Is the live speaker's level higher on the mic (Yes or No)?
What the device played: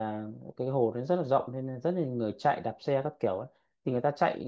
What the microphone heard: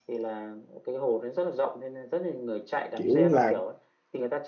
Yes